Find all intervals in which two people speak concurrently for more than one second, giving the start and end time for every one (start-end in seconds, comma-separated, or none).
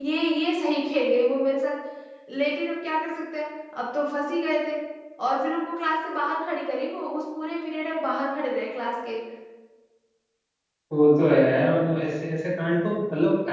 none